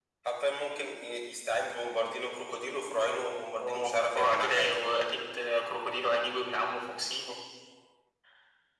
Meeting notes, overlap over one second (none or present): present